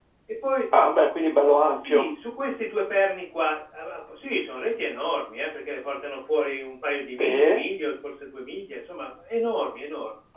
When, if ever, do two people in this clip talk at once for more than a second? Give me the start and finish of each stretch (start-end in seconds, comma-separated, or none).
none